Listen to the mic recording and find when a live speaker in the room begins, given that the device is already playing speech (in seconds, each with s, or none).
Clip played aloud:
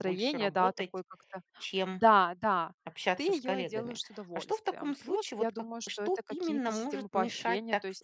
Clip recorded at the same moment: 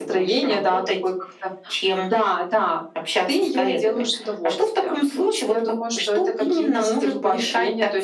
none